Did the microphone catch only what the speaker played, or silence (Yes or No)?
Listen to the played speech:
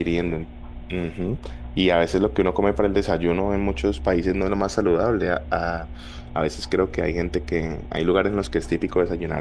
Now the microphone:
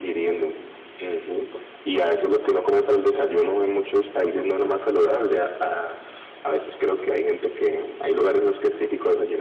Yes